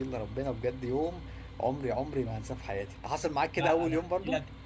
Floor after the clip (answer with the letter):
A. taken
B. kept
A